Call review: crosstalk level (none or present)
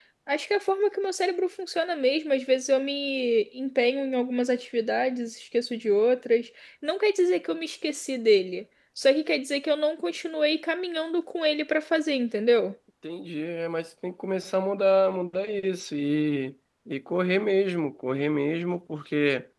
none